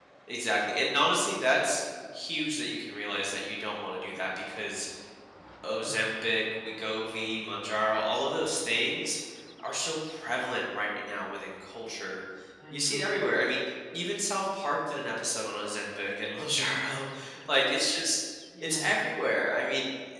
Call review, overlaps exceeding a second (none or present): none